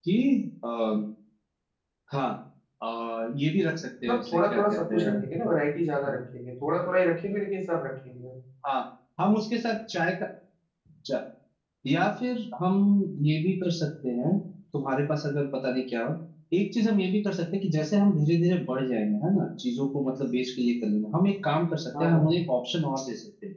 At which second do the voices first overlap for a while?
4.0 s

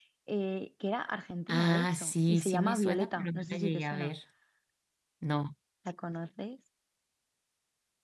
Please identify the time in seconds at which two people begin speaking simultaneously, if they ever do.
1.5 s

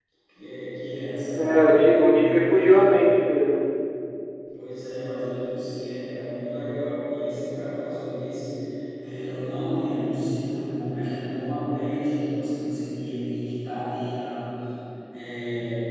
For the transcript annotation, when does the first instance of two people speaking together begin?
1.4 s

